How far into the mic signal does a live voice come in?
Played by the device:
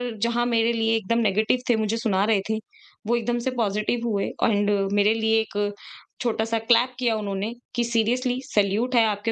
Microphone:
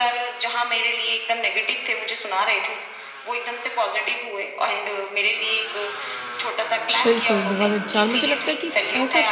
7.0 s

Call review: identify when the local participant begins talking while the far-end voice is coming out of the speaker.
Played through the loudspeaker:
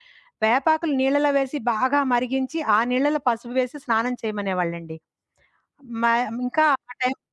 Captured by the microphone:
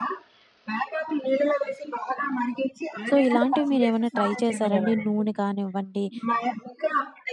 3.1 s

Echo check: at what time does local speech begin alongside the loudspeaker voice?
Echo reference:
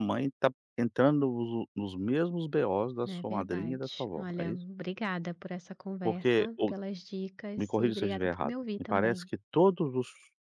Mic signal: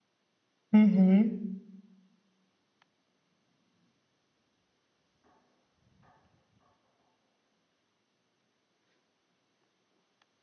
0.7 s

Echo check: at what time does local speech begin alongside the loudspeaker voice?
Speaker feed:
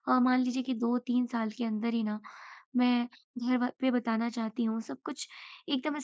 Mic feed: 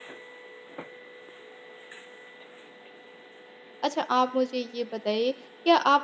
3.8 s

